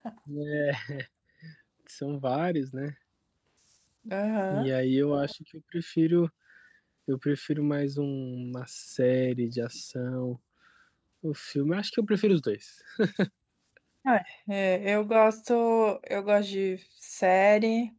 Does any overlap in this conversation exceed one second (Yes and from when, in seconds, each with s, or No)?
No